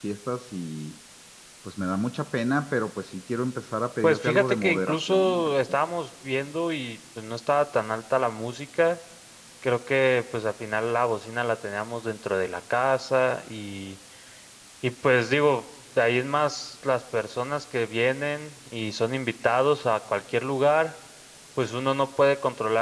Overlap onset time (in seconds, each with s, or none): 4.0 s